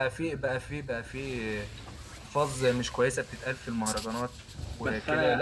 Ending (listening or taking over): taking over